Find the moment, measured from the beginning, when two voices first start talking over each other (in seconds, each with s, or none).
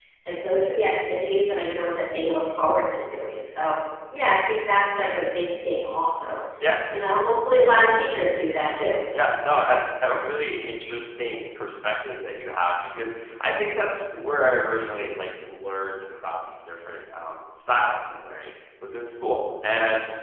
none